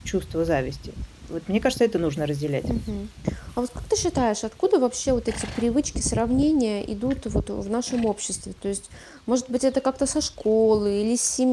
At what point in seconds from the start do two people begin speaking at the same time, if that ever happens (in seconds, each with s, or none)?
none